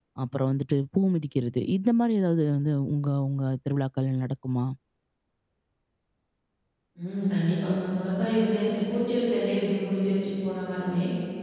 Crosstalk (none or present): none